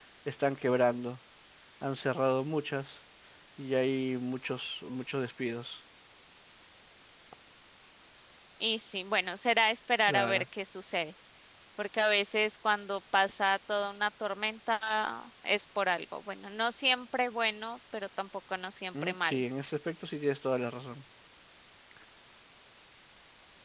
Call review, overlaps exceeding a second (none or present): none